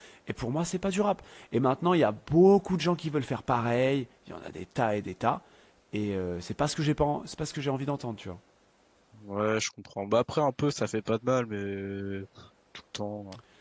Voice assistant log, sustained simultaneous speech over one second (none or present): none